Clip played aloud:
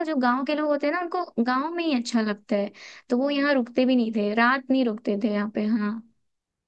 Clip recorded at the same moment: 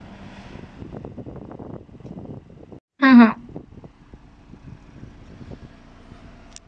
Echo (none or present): none